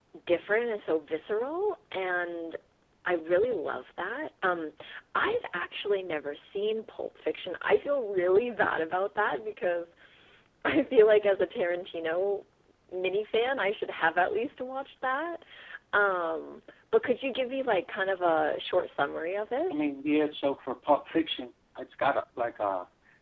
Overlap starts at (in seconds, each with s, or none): none